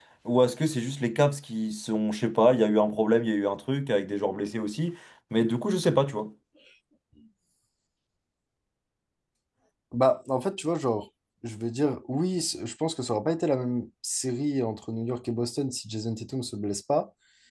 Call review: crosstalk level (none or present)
none